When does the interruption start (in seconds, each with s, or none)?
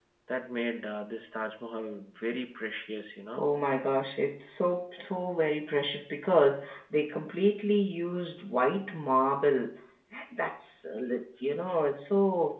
none